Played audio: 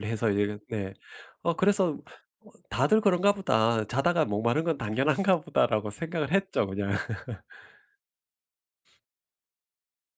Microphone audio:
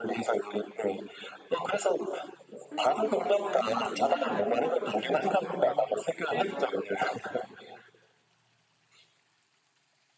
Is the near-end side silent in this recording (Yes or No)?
No